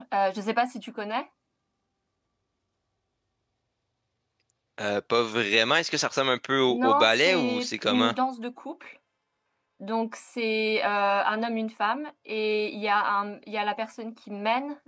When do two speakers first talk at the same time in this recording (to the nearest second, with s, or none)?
7 s